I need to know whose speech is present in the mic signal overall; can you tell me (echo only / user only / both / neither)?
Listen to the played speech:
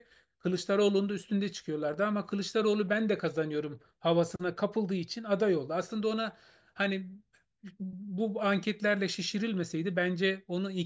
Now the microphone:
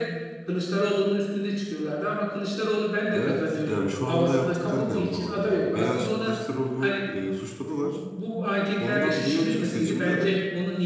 both